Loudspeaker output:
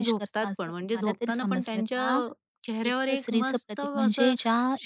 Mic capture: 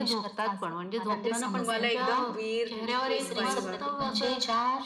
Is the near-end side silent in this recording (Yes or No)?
No